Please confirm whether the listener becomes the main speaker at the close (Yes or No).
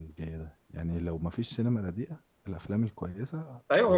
Yes